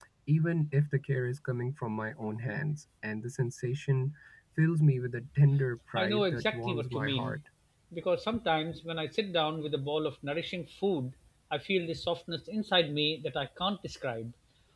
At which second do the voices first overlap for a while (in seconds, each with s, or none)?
6.0 s